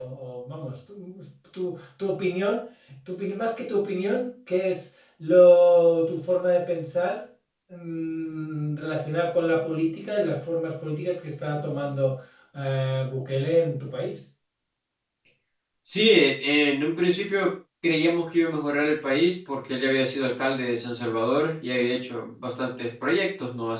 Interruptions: none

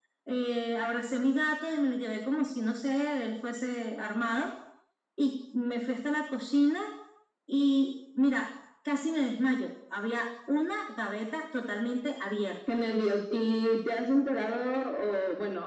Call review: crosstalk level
none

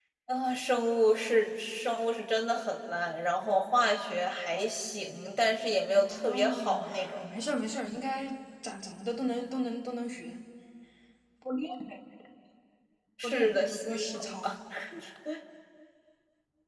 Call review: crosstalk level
present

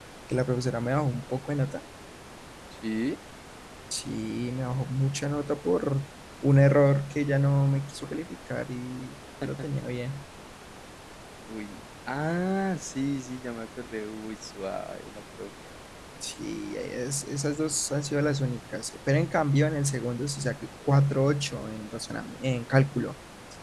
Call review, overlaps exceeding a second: none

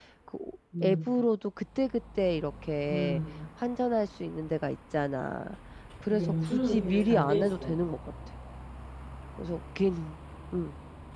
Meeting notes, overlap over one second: present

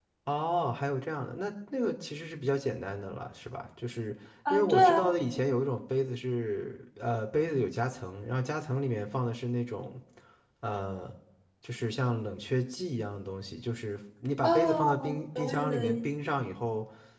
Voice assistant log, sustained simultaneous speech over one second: present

